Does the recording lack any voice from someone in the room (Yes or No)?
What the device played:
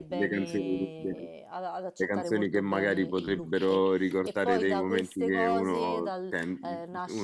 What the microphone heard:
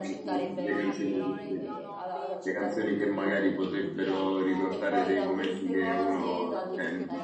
No